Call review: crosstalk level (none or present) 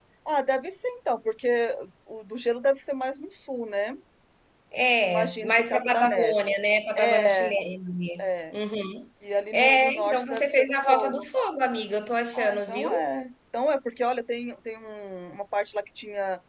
present